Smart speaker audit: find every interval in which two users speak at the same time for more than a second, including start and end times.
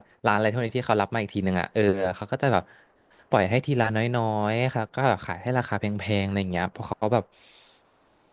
none

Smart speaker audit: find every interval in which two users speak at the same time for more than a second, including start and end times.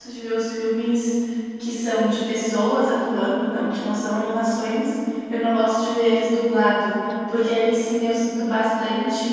none

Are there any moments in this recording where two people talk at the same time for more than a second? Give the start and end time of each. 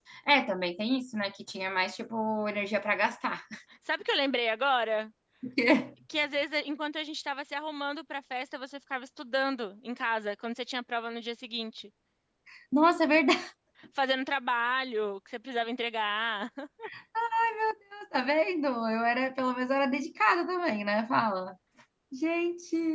none

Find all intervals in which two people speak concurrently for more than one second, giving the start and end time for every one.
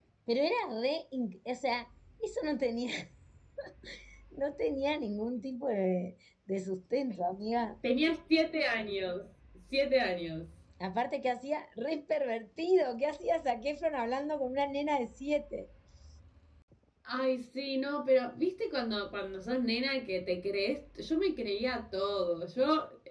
none

